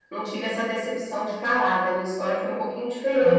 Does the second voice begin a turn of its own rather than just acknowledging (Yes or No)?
No